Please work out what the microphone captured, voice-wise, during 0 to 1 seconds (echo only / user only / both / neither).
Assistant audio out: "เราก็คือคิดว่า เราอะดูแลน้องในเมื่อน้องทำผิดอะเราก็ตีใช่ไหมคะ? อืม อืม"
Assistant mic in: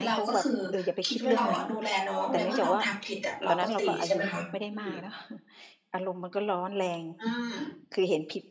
both